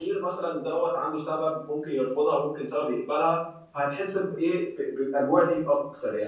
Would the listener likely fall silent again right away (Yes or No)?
No